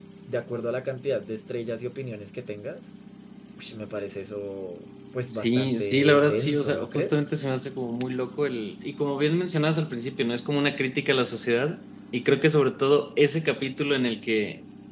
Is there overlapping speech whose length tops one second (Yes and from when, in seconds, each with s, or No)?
Yes, from 5.2 s